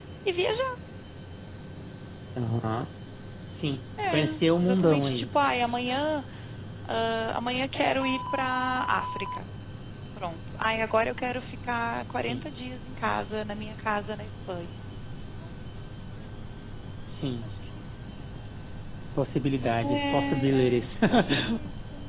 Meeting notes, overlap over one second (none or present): present